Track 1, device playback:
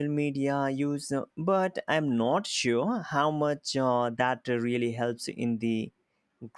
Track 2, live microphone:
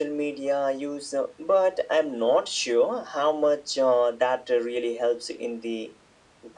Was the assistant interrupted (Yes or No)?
No